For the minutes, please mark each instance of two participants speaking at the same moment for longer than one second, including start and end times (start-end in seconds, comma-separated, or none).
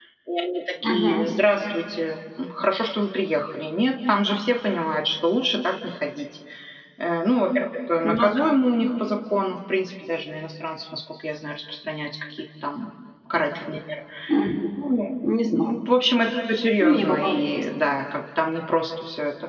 none